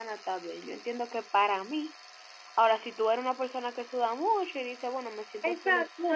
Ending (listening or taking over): taking over